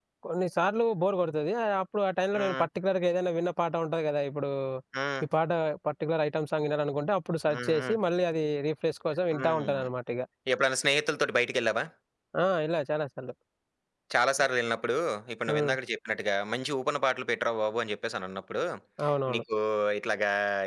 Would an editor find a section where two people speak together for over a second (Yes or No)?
No